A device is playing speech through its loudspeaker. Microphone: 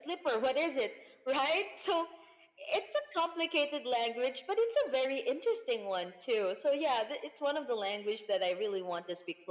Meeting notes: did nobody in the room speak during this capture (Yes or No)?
Yes